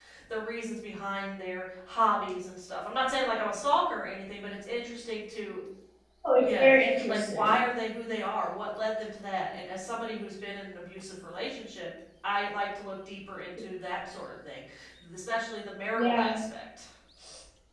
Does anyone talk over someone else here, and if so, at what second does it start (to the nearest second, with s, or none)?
6 s